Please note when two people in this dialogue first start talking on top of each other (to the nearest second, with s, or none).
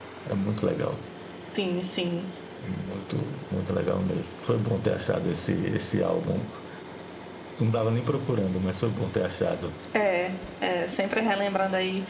none